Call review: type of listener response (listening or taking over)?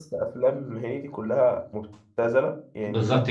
listening